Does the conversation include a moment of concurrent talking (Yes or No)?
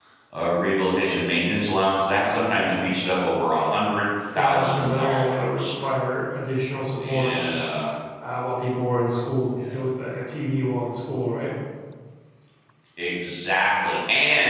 Yes